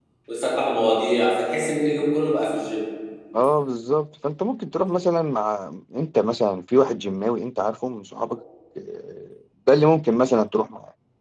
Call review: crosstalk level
none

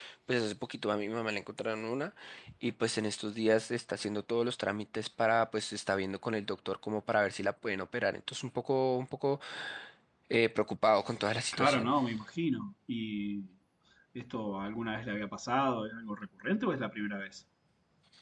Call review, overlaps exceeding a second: none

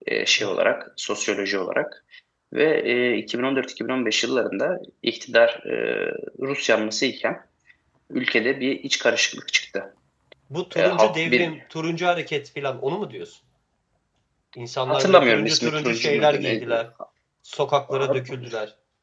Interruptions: present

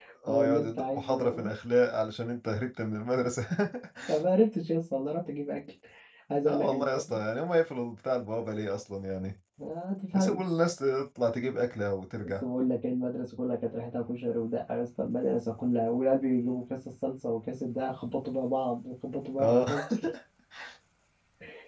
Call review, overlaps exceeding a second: present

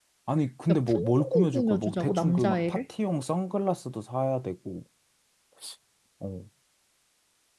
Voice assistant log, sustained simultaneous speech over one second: present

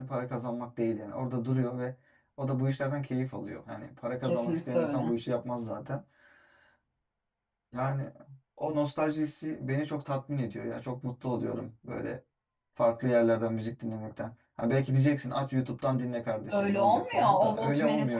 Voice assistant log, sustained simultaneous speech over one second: present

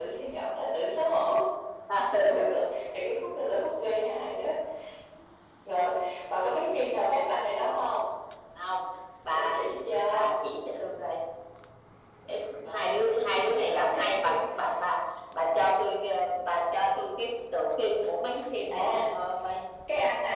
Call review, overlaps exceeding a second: present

